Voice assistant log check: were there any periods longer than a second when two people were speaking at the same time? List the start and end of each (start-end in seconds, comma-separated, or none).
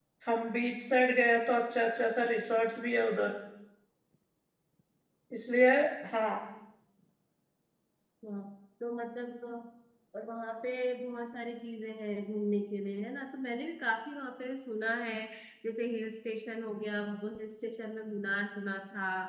none